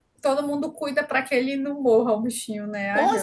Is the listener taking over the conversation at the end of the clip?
Yes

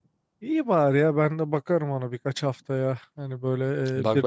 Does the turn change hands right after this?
No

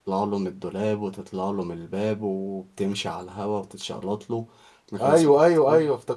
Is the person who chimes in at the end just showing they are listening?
No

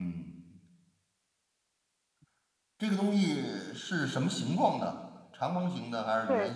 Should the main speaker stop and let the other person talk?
Yes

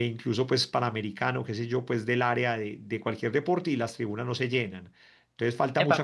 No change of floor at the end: No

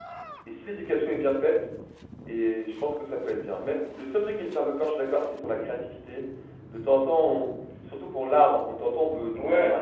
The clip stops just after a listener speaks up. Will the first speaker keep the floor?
Yes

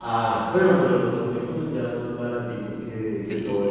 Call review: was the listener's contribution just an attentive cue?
No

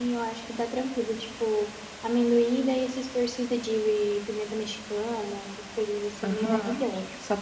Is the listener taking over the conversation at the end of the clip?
Yes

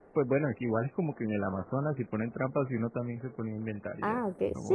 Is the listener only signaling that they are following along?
No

